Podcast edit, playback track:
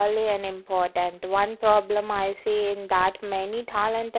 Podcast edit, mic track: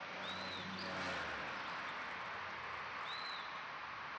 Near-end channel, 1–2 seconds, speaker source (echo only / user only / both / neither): neither